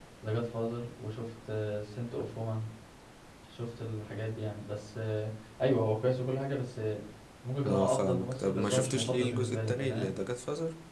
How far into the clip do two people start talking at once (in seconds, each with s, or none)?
7.6 s